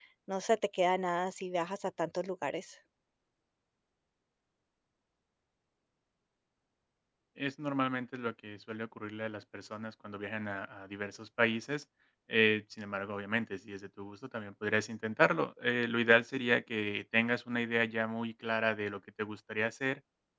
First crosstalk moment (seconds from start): none

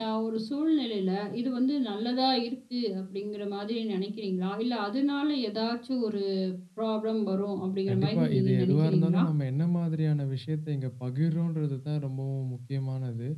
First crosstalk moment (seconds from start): 7.9 s

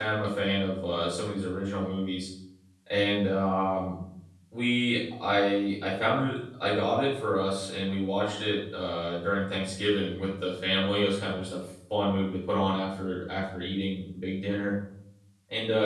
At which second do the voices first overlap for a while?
none

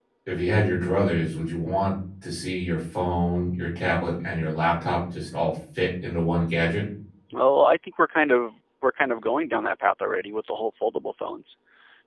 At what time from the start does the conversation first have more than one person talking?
none

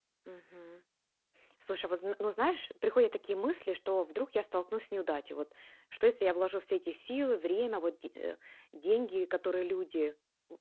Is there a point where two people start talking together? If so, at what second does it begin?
none

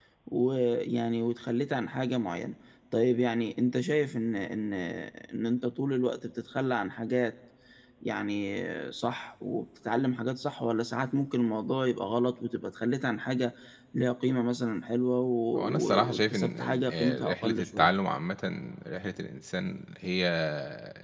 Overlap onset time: 15.6 s

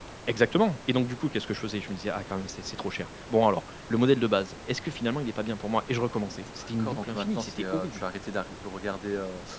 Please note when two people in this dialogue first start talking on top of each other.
6.6 s

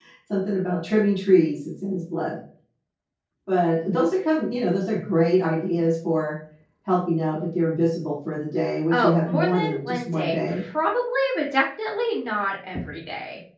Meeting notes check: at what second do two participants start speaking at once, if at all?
8.9 s

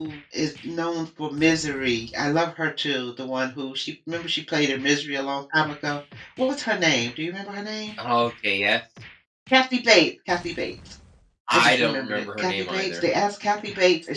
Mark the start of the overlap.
11.5 s

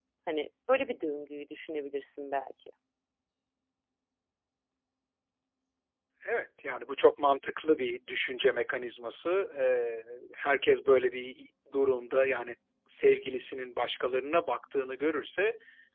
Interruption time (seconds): none

